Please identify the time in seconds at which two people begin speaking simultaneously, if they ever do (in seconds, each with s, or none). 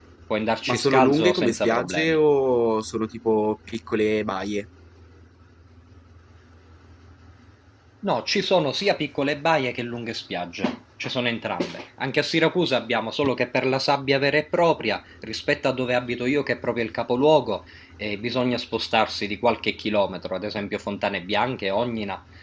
0.7 s